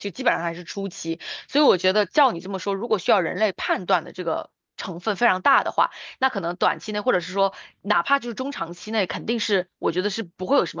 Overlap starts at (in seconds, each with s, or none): none